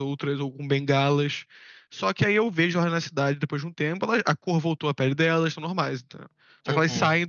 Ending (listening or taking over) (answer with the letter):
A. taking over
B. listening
B